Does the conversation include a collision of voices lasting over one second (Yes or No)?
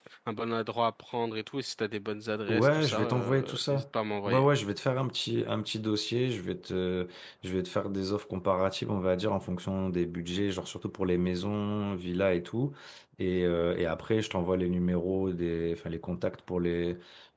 Yes